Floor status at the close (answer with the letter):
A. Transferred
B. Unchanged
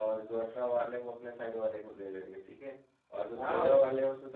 B